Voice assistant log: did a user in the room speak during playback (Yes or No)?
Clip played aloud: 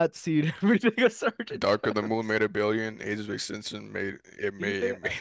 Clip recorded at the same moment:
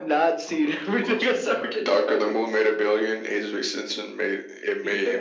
Yes